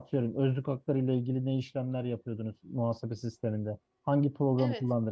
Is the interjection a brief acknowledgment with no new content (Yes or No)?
Yes